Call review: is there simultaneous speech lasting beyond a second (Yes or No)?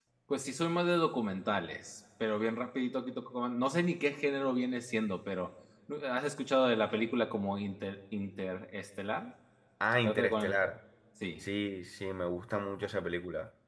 No